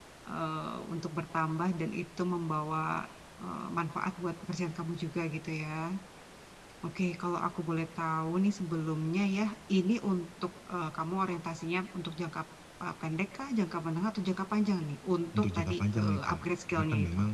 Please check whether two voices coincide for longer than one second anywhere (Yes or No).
Yes